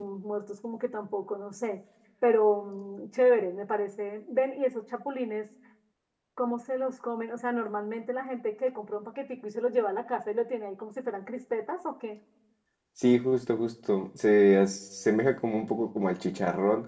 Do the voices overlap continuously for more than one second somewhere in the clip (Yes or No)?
No